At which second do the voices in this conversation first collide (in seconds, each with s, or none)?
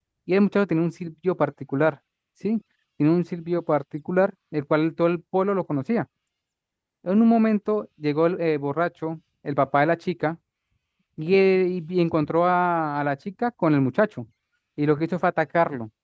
none